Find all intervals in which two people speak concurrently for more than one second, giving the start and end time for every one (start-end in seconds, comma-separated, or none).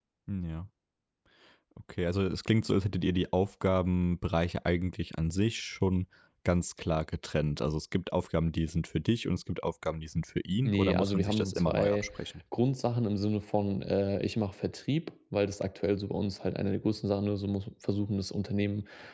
10.7-12.1